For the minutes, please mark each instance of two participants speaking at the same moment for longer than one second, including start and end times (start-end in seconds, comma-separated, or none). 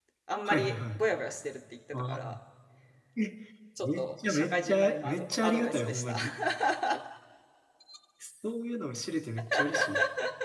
3.8-6.2